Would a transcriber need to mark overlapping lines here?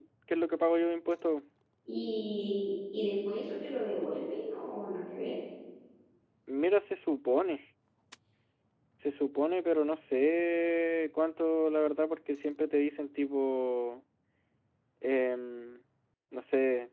No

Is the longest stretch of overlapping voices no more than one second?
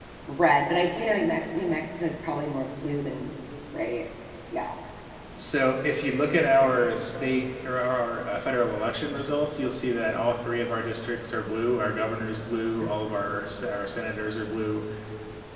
Yes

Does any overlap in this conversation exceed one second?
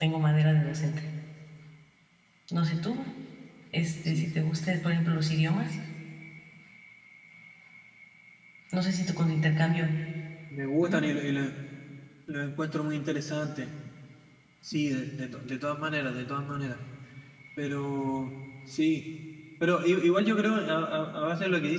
No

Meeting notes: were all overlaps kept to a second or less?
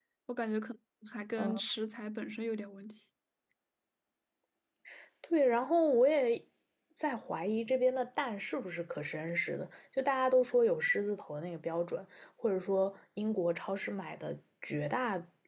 Yes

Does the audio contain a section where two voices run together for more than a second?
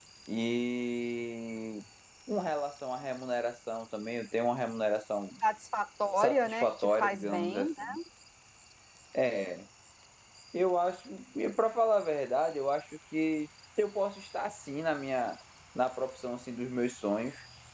Yes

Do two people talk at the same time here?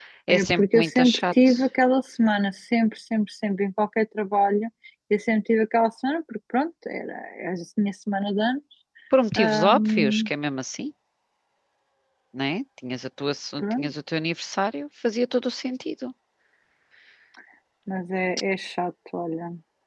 Yes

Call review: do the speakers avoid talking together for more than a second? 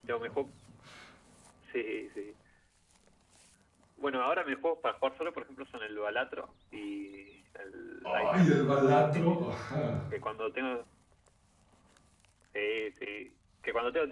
No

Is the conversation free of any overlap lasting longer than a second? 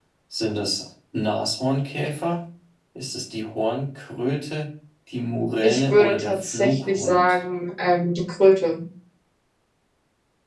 No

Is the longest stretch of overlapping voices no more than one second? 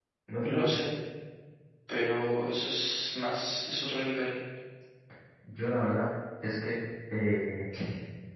Yes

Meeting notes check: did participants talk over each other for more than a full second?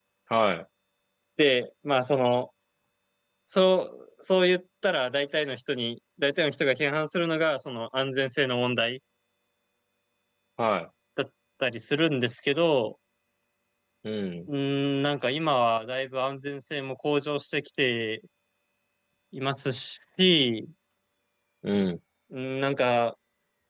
No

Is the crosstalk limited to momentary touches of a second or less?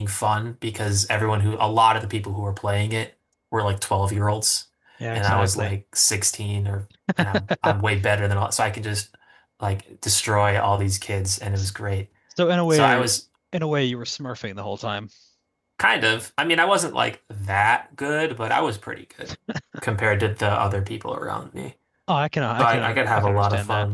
No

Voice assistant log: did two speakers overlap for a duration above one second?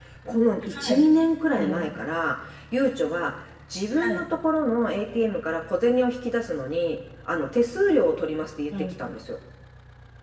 No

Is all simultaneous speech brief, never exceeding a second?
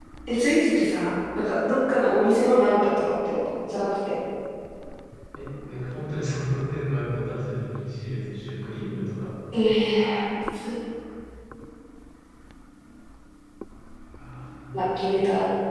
Yes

